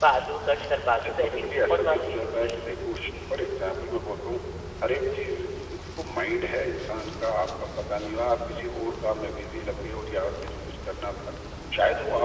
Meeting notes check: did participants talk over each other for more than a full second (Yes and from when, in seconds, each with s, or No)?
Yes, from 1.0 s